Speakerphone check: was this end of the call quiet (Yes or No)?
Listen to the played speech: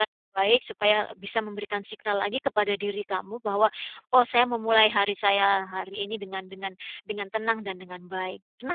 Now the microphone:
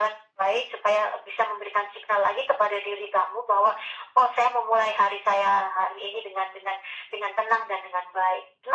Yes